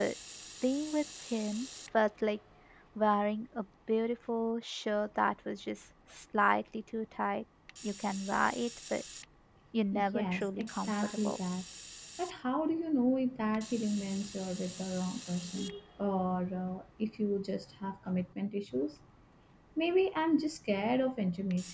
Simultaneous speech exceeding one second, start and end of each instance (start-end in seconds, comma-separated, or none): 10.1-11.4